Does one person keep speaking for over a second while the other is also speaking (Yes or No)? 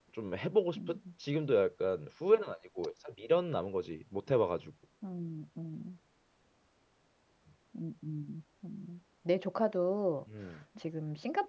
No